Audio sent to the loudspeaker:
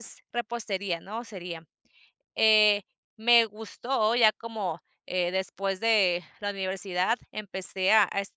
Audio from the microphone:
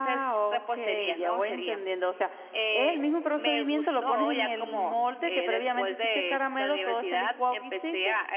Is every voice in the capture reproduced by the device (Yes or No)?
No